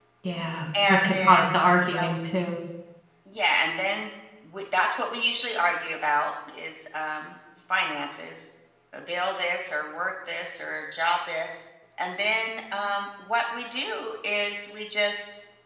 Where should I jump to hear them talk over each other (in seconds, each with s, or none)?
0.9 s